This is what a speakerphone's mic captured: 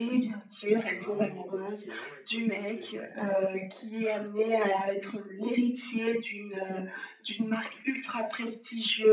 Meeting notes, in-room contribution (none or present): present